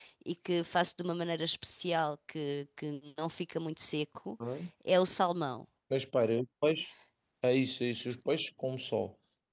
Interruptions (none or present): none